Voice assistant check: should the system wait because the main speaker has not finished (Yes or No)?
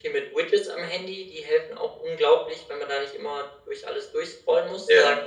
Yes